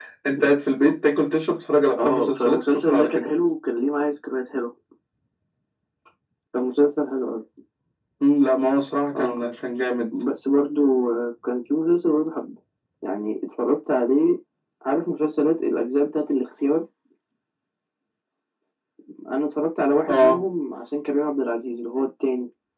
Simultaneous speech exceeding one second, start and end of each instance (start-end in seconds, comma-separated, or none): 2.0-3.3